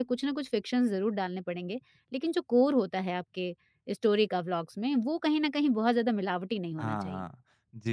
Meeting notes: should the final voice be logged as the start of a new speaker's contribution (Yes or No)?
Yes